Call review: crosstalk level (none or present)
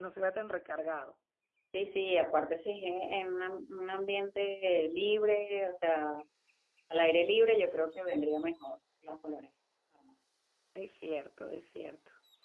none